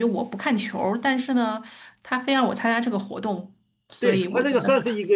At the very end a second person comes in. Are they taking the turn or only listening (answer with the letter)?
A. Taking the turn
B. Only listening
A